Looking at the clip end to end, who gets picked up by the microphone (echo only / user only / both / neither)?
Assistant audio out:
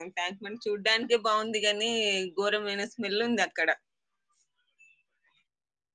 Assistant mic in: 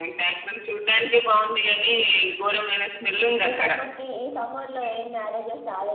both